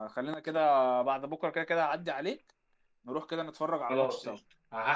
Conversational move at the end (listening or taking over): taking over